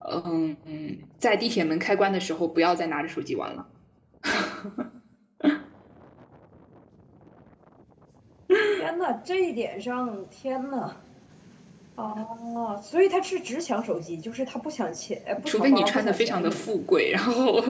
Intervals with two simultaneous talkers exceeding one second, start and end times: 15.4-16.7

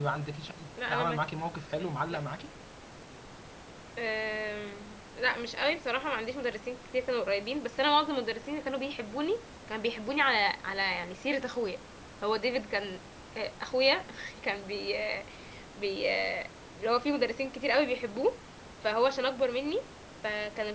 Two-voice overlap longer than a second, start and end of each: none

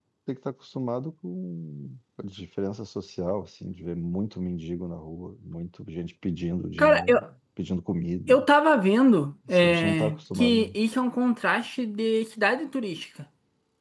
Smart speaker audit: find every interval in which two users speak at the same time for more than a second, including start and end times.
9.5-10.8

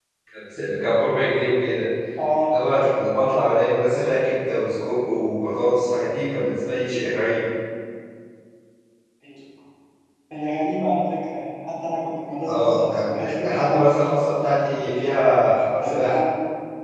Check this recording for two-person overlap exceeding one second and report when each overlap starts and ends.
12.5-13.9

